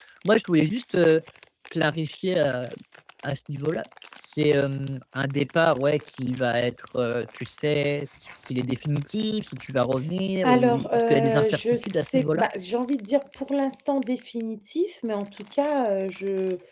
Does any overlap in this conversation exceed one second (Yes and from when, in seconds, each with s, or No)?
Yes, from 10.4 s